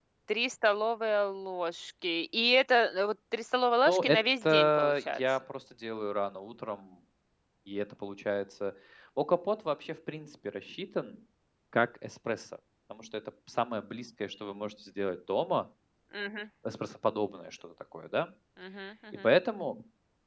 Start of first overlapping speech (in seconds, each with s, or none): 3.9 s